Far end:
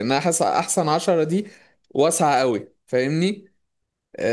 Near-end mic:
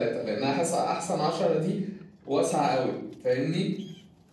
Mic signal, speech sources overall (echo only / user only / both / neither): echo only